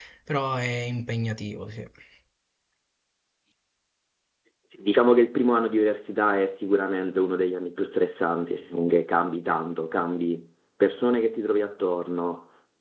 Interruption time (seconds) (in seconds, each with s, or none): none